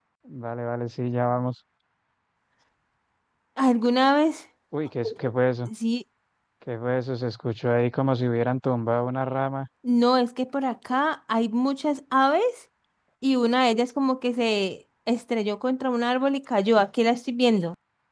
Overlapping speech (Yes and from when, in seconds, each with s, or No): No